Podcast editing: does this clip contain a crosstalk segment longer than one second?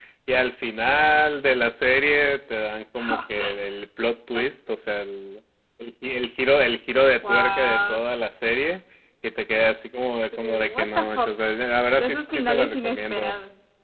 Yes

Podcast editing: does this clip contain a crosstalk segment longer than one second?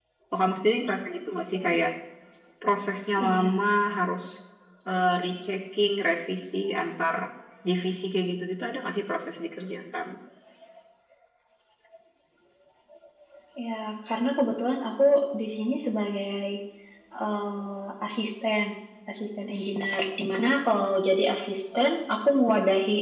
No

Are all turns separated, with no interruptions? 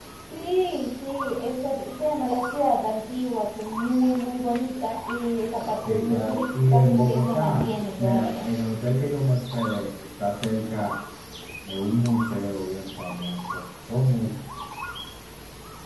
No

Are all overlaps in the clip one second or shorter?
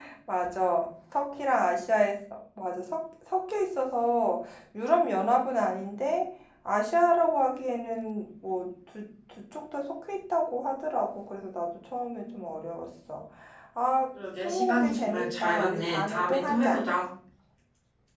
No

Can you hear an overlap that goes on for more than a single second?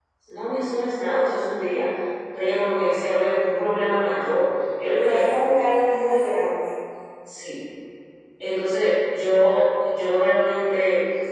No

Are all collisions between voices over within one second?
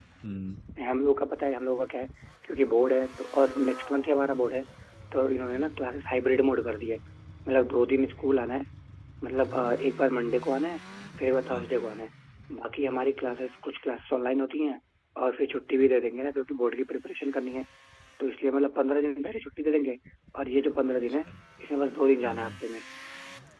Yes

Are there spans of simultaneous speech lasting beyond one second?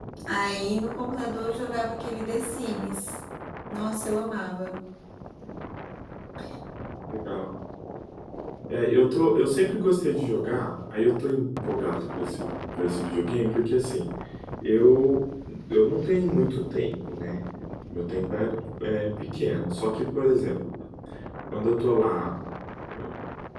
No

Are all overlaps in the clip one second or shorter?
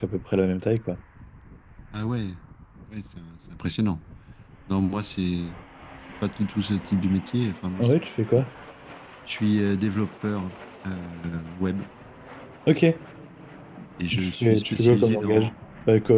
No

